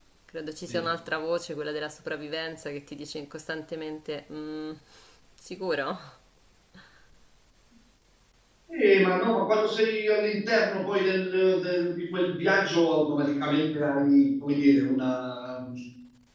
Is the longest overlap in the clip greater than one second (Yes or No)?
No